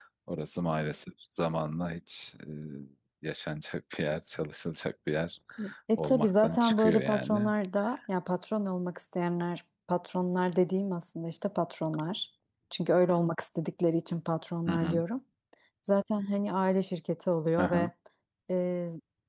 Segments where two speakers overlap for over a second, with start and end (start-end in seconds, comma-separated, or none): 6.0-7.5